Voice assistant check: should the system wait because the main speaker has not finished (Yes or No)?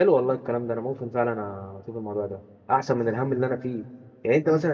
Yes